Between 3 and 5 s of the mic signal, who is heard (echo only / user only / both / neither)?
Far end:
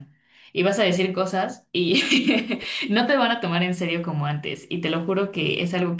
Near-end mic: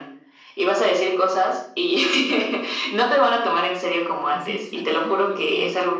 both